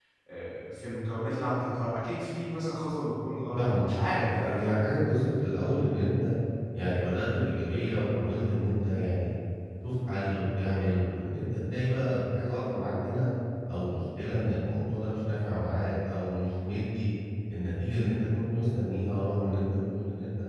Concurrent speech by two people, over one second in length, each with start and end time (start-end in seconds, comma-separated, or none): 3.6-4.8